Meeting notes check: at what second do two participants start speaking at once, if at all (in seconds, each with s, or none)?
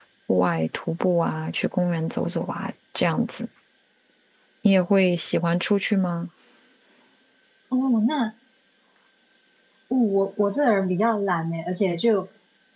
none